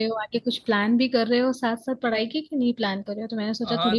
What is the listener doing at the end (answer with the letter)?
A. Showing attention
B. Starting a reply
B